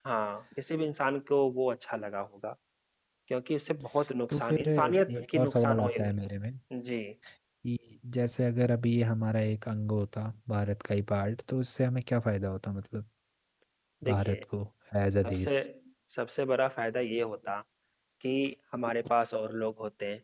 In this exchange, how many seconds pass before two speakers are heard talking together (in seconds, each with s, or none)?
4.3 s